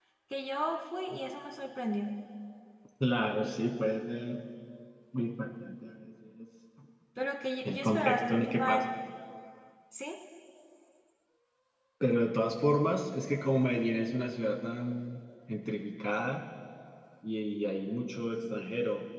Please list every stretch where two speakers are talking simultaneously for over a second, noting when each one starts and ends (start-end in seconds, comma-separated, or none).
7.7-8.9